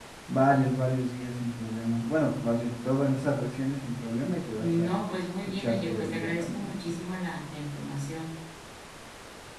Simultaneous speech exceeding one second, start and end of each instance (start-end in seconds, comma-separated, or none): 5.4-6.8